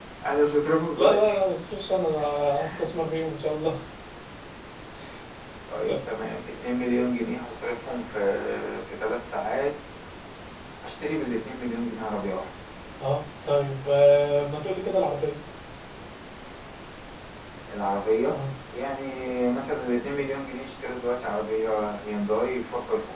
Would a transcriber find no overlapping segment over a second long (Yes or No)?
Yes